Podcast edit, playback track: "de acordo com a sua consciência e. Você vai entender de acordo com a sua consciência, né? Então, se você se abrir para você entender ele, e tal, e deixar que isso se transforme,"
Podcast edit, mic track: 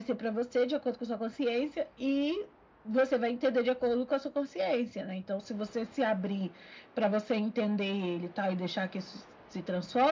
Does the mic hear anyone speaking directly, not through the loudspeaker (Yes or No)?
No